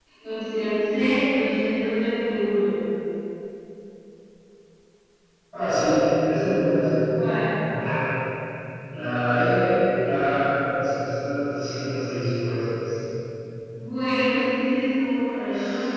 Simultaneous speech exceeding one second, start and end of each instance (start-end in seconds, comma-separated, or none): none